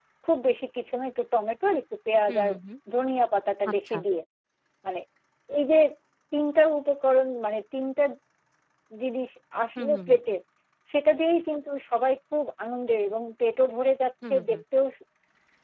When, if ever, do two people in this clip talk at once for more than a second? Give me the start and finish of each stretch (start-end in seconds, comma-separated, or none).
none